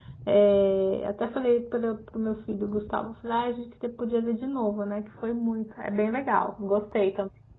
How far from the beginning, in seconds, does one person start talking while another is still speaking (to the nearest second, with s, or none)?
none